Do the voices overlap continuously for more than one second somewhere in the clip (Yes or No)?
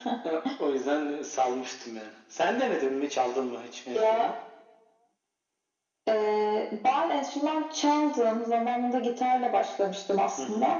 No